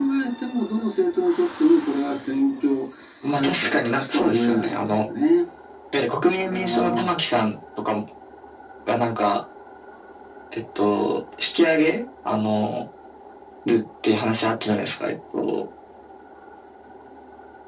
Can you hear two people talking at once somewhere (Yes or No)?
Yes